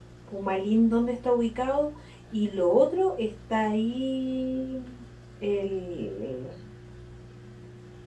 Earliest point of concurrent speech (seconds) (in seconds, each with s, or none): none